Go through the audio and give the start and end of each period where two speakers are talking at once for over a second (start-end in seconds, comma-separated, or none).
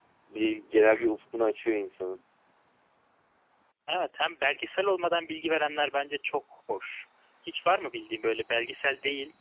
none